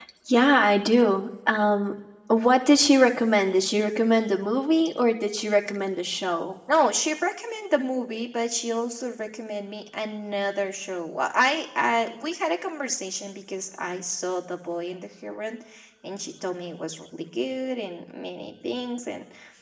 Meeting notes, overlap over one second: none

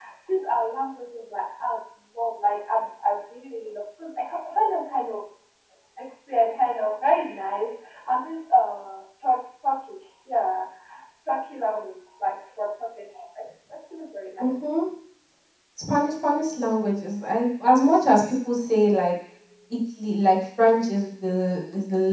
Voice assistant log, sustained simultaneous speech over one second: none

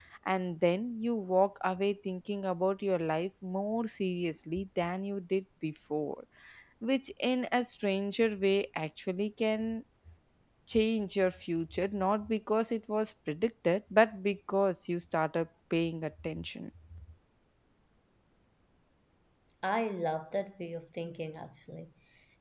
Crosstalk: none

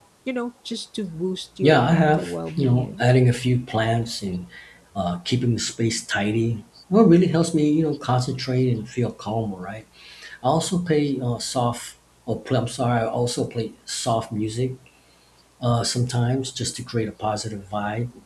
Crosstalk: present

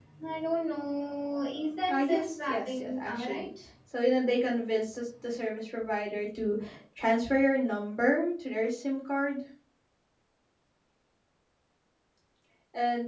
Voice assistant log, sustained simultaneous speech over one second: present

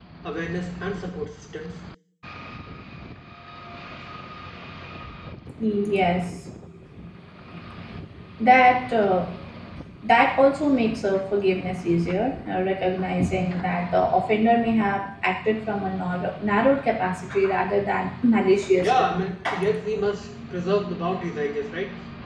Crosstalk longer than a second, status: none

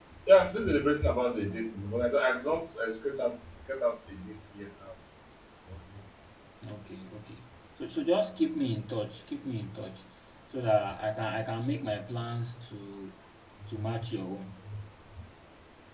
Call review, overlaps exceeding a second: none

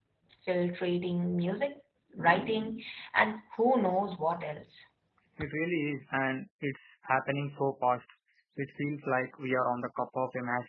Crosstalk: none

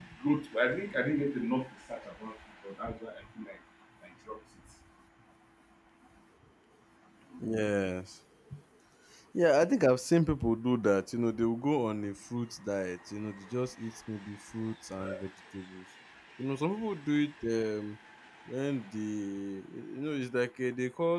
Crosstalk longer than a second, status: none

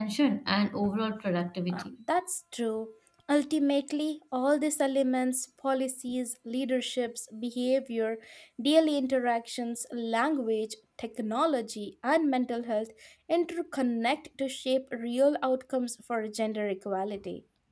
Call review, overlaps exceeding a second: none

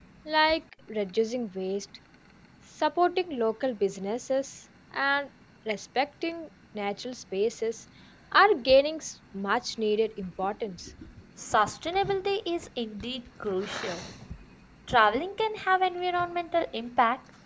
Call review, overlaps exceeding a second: none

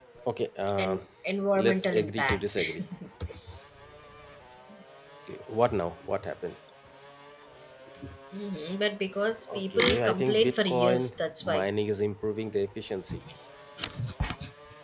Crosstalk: present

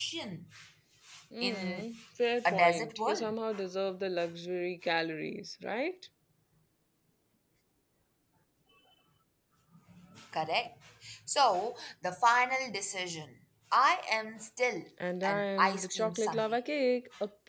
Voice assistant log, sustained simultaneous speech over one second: present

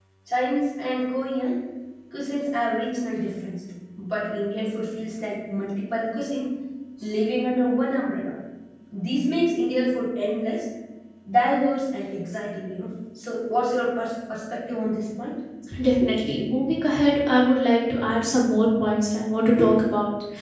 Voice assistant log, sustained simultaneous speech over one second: none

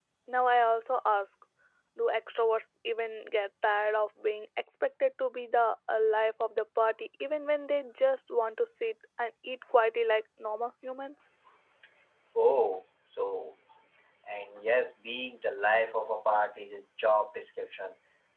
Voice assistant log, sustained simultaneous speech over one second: none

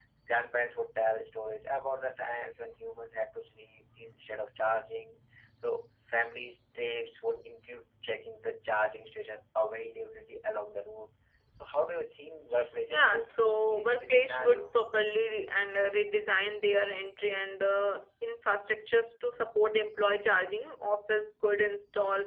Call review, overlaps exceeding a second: present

